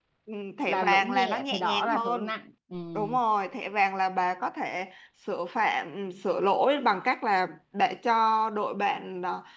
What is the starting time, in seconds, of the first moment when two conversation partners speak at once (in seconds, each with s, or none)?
0.7 s